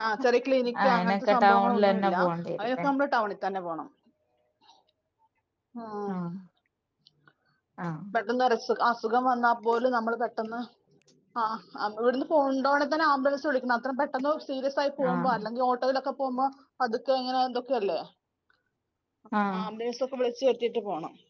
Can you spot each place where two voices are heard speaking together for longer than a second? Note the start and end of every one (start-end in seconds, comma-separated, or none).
0.8-2.2